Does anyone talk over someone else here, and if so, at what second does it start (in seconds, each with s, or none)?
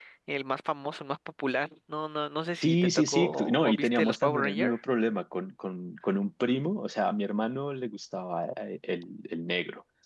2.6 s